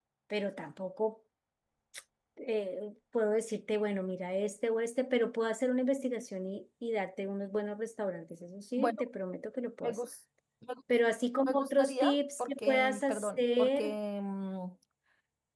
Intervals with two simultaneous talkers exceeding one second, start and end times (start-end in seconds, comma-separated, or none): 11.5-14.0